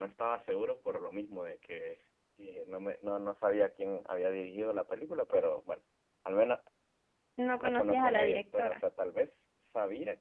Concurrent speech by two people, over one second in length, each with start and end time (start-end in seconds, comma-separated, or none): 7.6-8.8